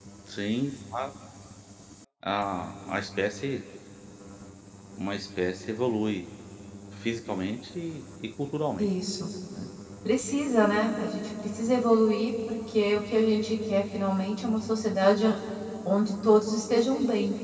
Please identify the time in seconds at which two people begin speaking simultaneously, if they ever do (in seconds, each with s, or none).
none